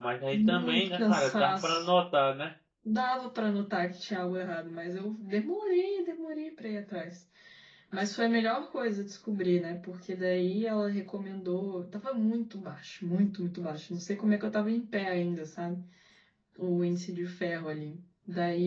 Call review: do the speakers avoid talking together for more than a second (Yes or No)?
No